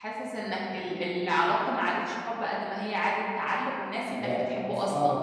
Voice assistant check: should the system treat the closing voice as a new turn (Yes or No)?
Yes